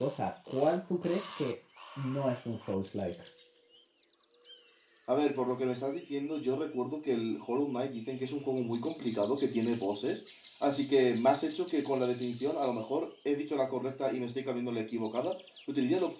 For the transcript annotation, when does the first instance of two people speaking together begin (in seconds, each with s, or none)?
none